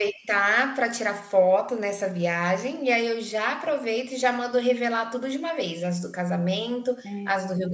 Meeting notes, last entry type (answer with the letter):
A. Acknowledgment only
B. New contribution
A